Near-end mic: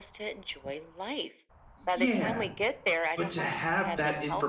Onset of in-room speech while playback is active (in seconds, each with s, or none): 1.9 s